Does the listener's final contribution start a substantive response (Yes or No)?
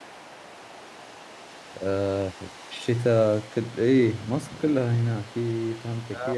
No